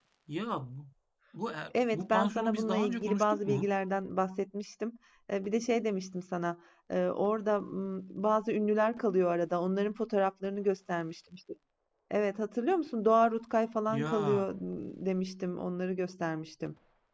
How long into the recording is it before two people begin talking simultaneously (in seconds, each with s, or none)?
1.9 s